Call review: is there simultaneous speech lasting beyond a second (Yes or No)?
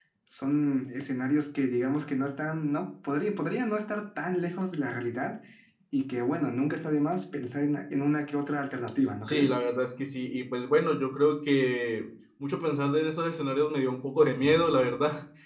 No